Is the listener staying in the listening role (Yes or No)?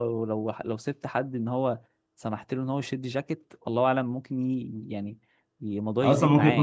No